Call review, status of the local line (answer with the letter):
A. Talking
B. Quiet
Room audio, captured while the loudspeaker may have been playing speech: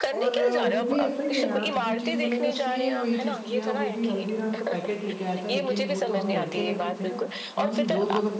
A